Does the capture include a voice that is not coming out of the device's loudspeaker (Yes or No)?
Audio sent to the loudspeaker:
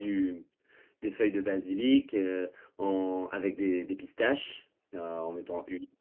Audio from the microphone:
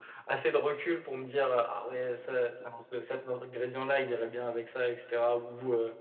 Yes